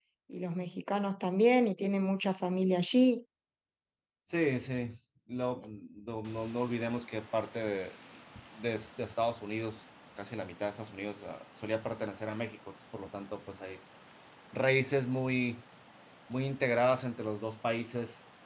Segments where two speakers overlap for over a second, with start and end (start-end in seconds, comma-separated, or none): none